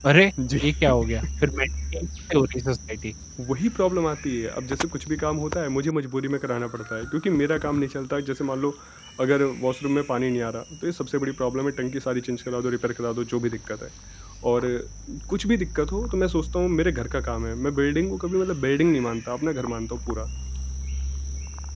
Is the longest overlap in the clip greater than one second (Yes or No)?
No